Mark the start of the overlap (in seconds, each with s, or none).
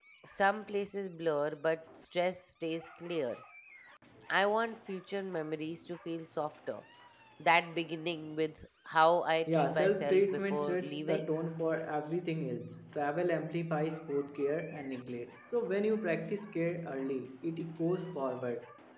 9.5 s